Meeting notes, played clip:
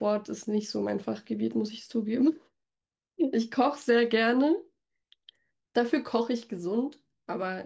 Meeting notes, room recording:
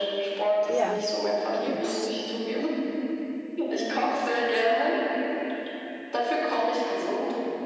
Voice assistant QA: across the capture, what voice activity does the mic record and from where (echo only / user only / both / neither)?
both